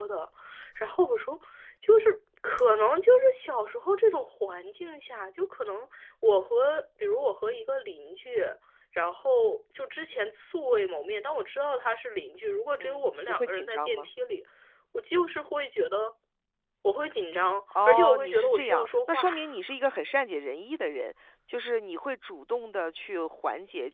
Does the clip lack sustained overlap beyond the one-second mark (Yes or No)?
No